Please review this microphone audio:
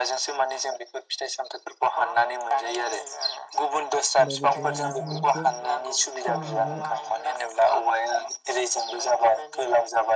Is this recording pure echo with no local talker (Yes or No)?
No